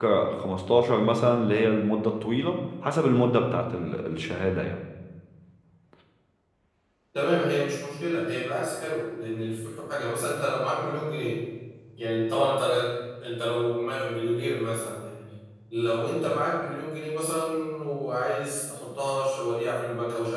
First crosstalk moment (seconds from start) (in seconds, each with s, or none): none